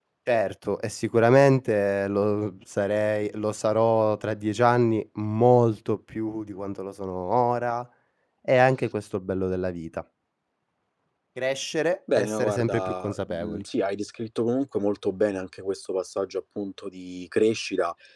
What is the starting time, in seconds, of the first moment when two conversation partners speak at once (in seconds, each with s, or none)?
12.2 s